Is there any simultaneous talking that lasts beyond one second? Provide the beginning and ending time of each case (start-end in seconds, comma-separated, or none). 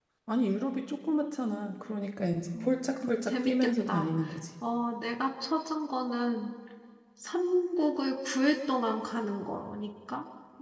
2.6-4.1